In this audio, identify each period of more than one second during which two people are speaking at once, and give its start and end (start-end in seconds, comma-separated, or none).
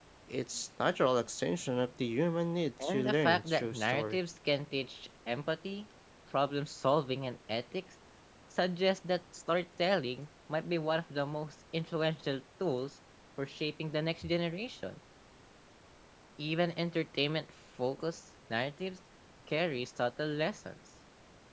2.8-4.2